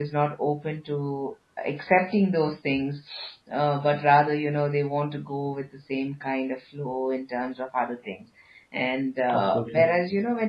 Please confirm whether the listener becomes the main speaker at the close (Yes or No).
No